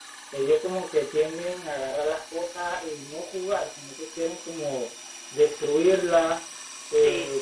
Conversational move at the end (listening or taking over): listening